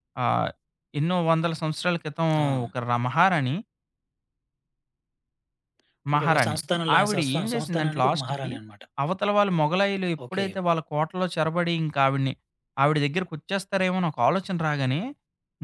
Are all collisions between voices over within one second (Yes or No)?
No